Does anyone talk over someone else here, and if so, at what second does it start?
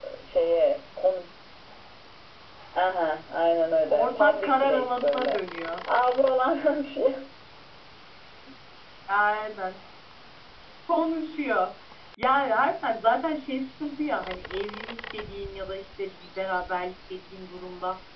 3.9 s

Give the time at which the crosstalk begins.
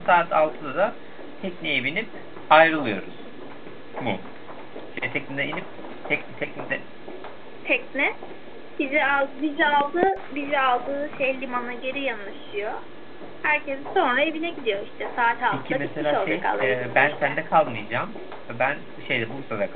15.5 s

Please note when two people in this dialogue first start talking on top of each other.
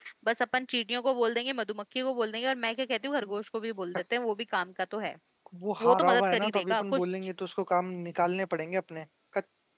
5.8 s

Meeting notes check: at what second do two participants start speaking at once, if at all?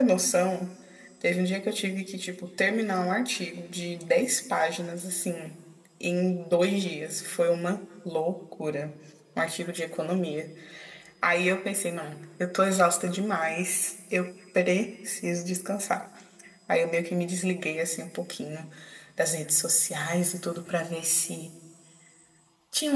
none

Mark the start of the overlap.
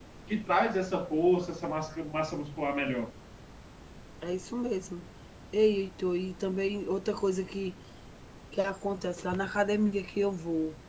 none

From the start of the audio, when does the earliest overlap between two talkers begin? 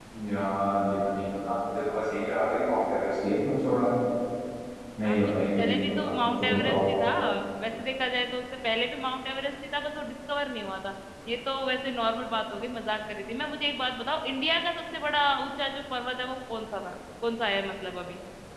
5.1 s

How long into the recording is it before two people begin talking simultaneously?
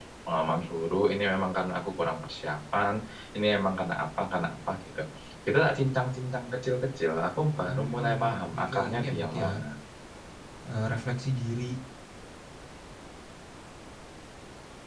7.5 s

